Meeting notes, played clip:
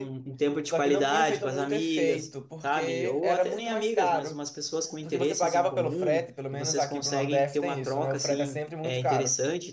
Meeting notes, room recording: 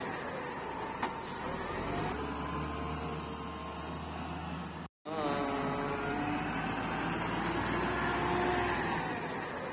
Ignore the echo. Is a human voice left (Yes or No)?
No